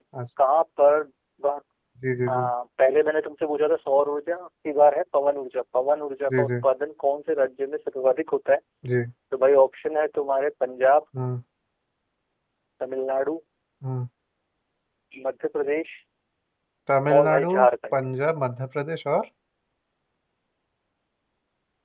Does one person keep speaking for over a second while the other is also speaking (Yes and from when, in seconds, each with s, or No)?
No